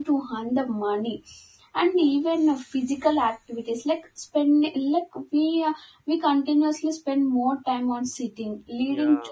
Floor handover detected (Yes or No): No